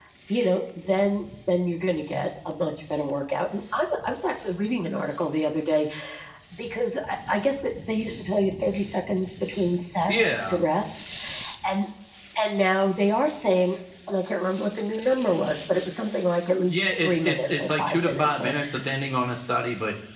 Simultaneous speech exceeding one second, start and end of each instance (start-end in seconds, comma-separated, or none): 16.7-18.5